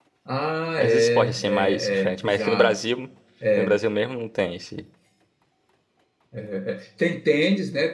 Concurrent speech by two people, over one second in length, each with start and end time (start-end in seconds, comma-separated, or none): 0.8-2.8